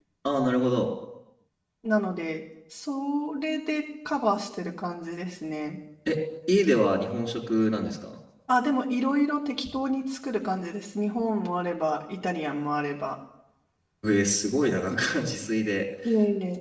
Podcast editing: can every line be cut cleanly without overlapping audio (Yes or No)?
Yes